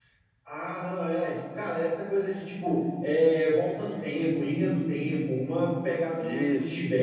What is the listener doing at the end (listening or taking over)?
listening